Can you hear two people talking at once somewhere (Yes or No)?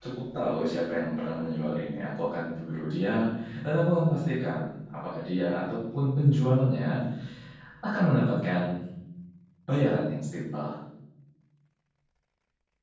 No